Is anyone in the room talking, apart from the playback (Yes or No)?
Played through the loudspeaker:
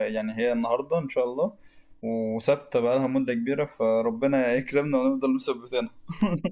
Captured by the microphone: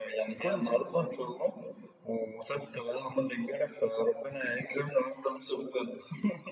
Yes